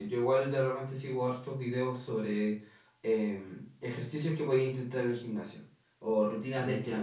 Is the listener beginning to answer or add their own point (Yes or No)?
No